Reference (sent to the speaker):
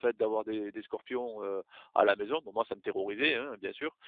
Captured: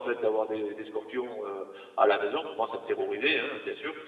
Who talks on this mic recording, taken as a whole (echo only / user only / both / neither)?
echo only